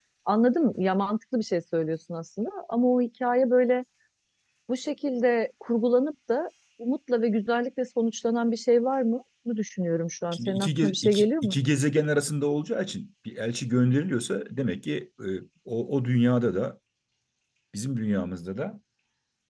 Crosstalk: present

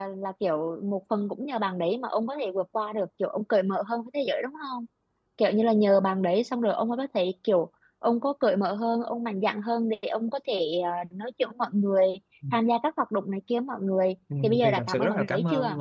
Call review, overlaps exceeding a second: present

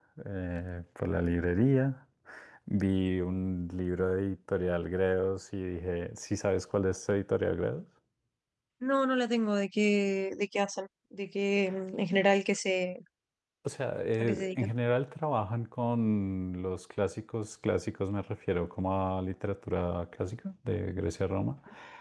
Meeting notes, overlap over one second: none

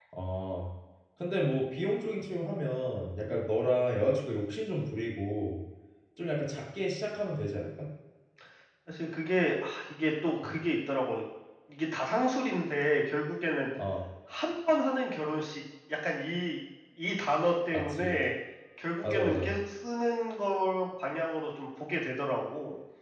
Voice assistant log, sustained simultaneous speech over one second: none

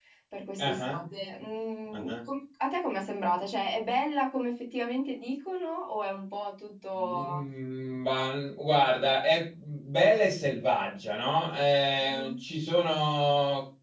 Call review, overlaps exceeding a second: none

